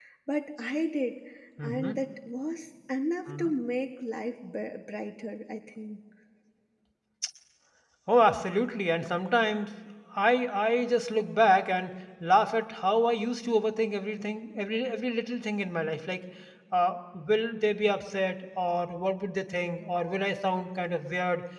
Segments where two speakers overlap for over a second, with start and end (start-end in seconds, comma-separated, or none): none